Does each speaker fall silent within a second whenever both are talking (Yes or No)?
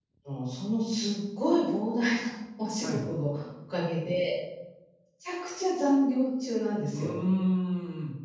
Yes